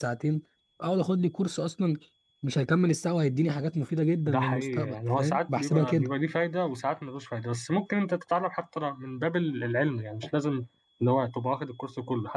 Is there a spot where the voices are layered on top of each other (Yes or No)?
Yes